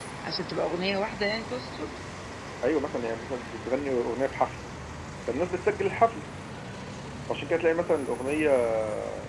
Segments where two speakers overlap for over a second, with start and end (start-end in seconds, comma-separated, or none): none